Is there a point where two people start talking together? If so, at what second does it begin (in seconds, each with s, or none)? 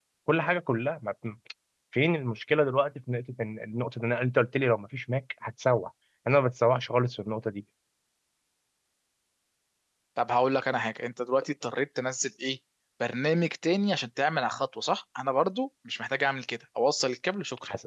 none